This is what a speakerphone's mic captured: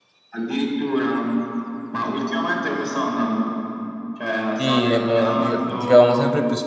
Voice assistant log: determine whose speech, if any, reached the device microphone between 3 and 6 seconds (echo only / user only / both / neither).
both